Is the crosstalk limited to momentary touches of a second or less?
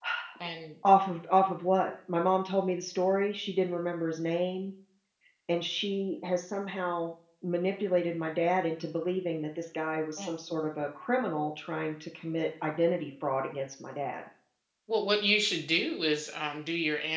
Yes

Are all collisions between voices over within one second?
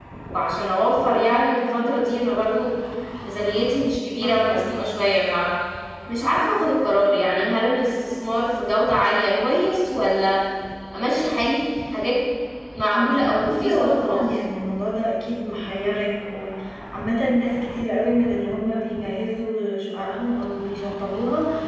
No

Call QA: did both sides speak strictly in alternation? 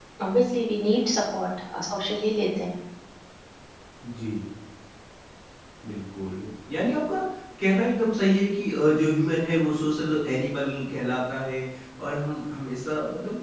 Yes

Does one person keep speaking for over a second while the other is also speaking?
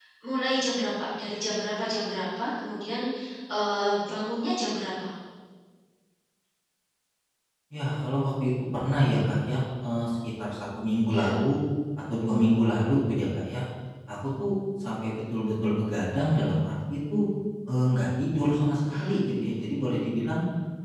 No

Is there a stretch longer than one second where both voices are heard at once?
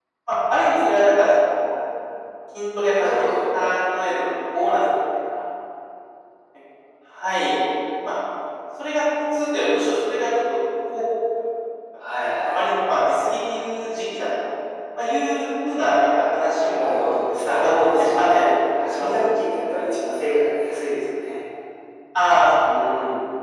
Yes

